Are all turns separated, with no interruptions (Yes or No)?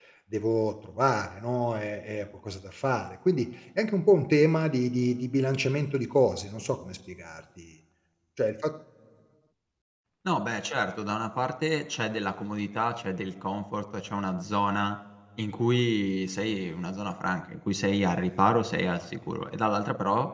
Yes